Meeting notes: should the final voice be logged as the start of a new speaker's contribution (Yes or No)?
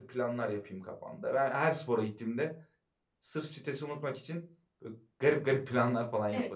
Yes